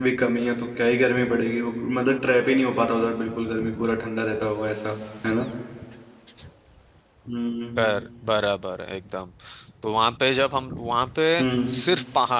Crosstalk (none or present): none